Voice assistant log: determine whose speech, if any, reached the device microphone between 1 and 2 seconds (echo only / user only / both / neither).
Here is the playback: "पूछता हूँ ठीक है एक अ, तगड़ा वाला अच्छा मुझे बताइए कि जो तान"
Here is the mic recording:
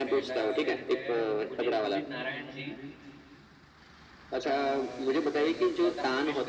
both